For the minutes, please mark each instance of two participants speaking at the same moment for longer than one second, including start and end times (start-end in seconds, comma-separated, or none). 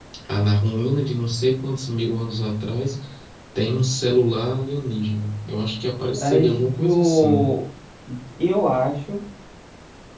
6.2-7.5